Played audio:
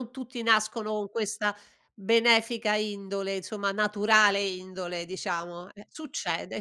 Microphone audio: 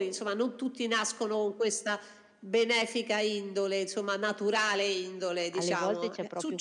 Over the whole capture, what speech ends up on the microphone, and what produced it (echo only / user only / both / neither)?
both